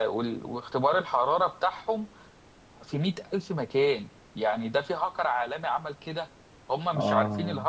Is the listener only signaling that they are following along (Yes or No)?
Yes